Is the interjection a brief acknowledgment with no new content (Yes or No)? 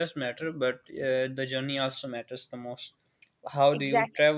Yes